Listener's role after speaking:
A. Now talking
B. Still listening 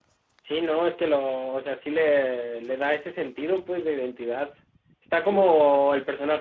B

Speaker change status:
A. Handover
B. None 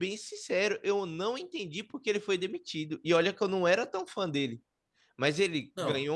B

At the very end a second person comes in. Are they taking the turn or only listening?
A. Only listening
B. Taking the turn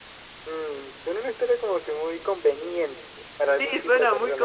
B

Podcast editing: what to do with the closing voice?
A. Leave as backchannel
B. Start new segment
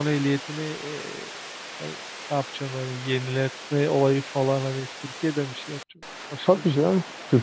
B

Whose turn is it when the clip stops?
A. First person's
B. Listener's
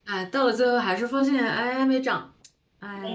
B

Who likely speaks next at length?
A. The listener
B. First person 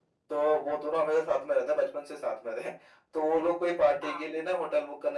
B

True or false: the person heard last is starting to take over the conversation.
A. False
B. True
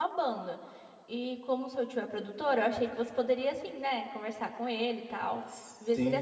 B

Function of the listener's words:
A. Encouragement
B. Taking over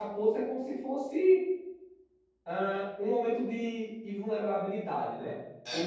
A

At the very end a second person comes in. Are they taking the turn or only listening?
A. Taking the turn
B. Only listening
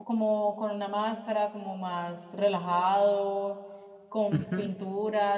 B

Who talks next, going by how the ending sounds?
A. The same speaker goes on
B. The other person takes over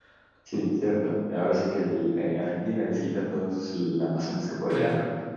B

